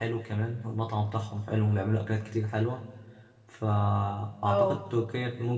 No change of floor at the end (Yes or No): Yes